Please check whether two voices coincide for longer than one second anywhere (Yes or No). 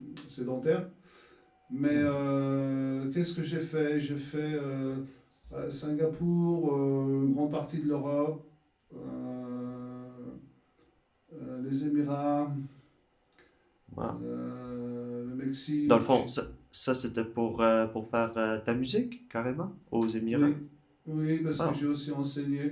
No